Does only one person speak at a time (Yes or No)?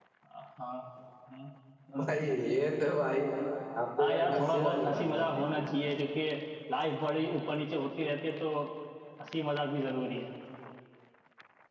No